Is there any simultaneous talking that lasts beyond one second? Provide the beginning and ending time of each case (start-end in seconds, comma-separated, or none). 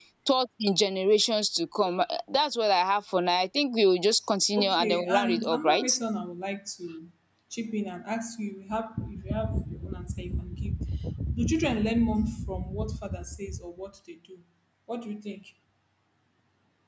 4.6-5.9